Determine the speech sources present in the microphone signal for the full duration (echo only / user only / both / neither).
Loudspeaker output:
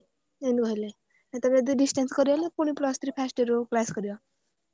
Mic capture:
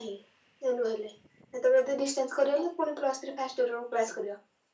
echo only